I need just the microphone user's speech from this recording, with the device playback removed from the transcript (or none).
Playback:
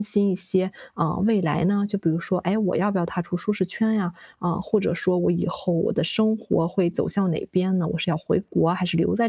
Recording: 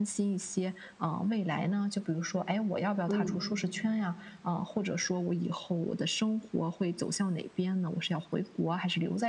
嗯，